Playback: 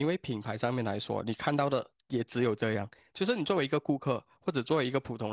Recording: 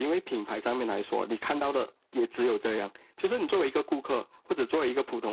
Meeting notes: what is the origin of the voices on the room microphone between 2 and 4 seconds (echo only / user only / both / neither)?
echo only